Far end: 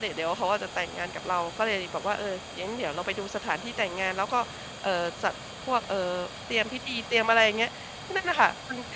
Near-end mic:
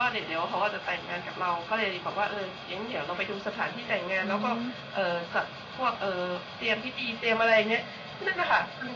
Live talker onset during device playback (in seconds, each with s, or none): 4.2 s